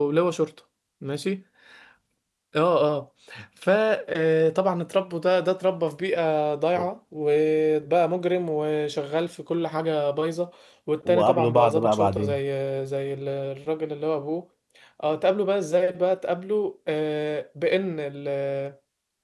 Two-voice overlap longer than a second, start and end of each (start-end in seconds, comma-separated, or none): 11.1-12.4